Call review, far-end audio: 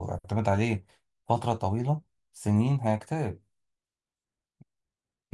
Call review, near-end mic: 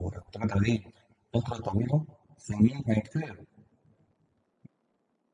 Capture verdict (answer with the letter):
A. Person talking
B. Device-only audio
B